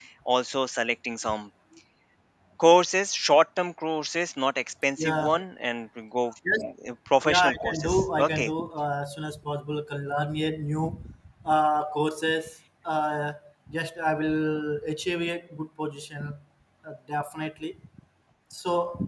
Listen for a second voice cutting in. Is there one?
Yes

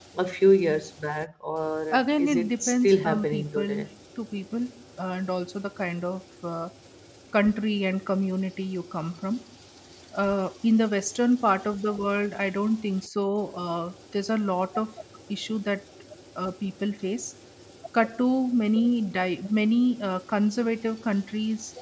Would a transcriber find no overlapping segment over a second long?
No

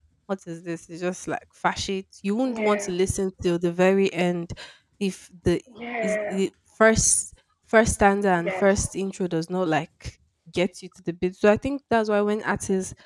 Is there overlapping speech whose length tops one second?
No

